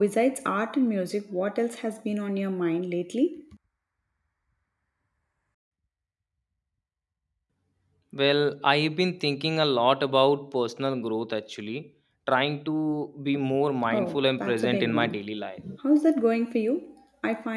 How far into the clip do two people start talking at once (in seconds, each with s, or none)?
13.8 s